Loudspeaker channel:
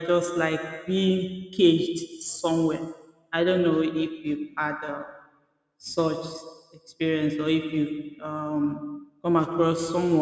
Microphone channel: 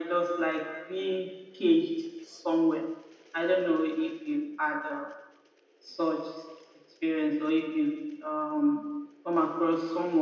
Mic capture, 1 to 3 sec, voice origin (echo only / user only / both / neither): echo only